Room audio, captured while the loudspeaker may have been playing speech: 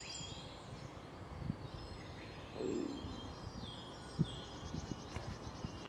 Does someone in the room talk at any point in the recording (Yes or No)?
No